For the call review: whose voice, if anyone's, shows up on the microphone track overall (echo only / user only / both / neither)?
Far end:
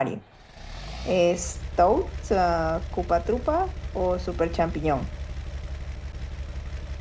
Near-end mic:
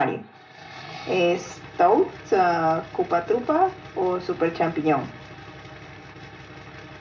echo only